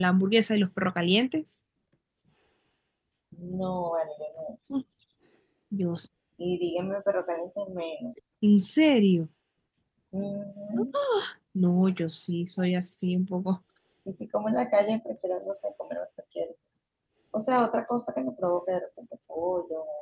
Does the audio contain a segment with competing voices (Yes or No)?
No